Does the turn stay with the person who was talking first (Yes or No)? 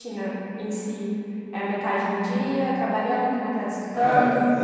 No